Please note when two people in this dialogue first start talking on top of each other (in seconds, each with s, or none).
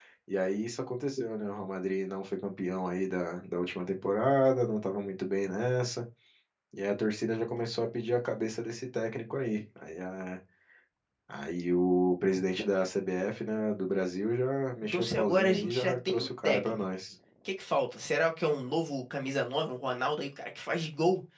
14.9 s